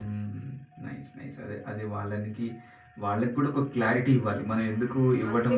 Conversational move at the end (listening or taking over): listening